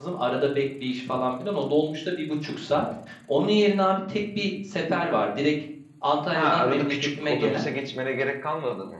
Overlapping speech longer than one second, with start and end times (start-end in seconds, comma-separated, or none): 6.3-7.6